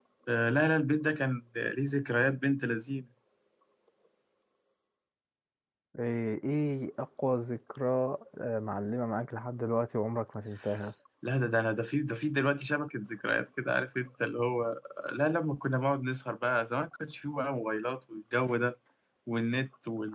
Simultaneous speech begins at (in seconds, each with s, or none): none